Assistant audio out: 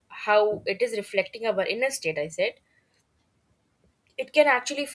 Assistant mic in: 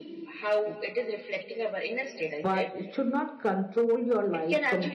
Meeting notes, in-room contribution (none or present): present